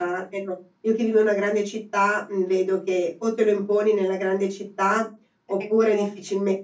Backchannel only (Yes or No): Yes